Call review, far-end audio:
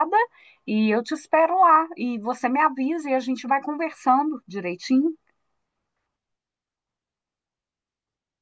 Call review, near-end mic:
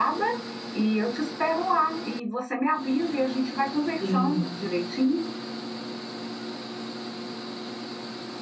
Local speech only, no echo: sim.

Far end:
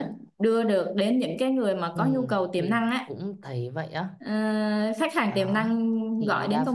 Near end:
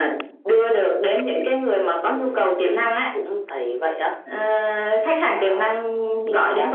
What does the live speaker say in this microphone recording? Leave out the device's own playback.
none

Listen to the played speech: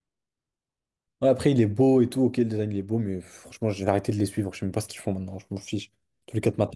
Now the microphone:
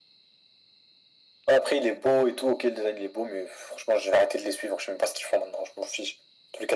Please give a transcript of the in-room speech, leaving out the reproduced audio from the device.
none

